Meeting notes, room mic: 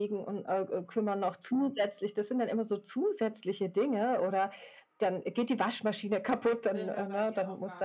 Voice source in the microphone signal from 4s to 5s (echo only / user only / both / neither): echo only